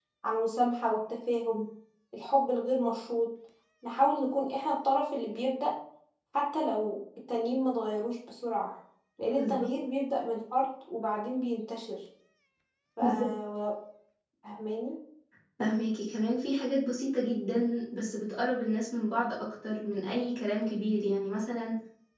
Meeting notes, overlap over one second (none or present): none